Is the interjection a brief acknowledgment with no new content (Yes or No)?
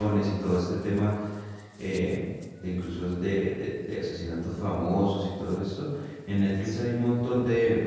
Yes